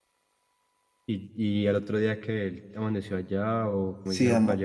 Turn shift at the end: Yes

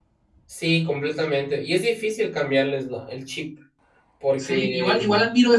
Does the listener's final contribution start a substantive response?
Yes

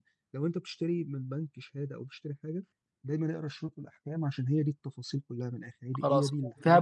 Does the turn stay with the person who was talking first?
No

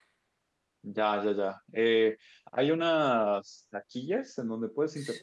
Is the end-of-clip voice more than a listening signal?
No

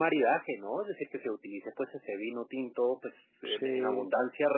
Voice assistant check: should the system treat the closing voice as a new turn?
No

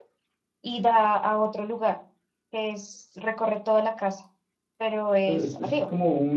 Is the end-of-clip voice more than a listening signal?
Yes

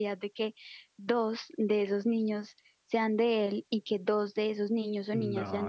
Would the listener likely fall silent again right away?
No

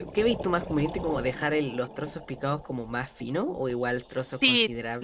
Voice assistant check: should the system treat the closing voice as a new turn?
Yes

